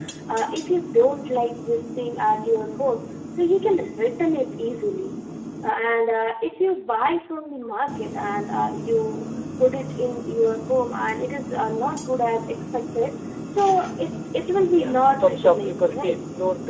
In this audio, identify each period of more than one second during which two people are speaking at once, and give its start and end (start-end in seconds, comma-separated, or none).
14.7-16.2